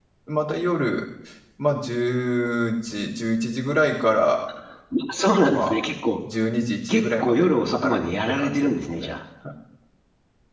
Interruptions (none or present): present